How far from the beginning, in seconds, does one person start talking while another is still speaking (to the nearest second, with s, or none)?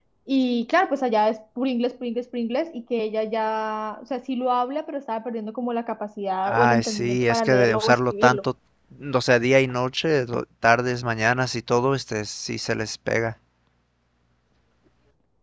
6 s